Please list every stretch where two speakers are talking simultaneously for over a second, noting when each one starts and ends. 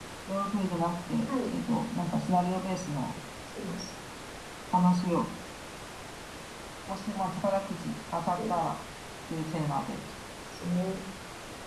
none

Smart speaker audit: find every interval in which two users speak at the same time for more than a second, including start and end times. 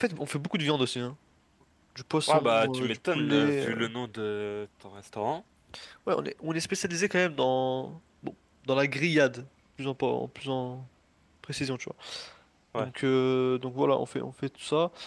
2.3-3.7

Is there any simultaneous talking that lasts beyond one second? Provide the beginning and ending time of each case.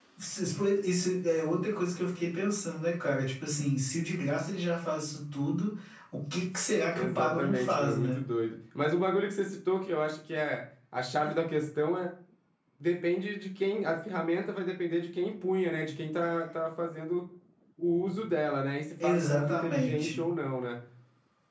6.9-8.2, 19.0-20.2

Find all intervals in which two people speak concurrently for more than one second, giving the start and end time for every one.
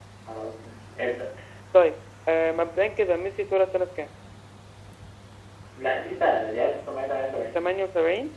none

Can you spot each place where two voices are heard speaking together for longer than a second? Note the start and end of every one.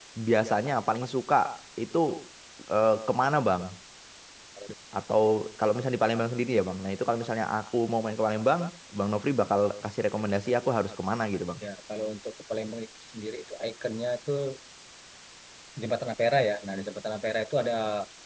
none

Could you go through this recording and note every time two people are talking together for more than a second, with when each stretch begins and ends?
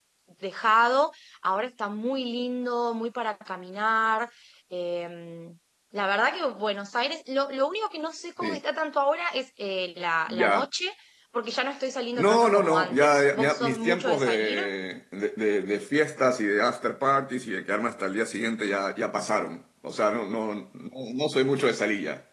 12.2-14.6

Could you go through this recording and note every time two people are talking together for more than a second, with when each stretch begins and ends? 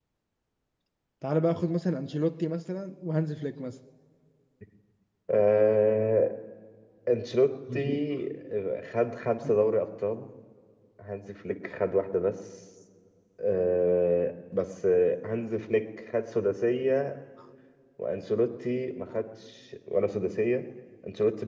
none

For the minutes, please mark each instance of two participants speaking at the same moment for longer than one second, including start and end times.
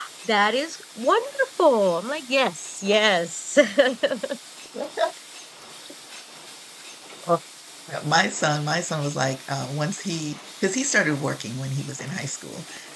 none

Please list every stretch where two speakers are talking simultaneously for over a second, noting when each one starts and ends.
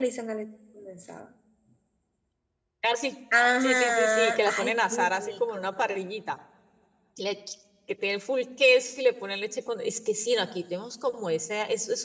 3.6-5.7

